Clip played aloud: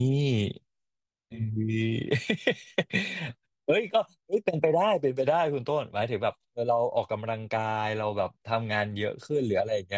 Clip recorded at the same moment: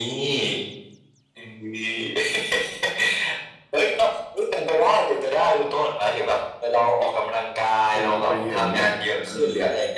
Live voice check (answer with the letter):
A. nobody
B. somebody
B